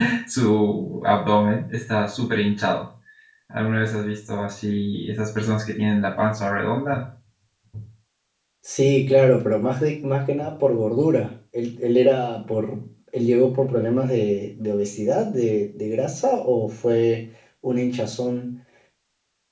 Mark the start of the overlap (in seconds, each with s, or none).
none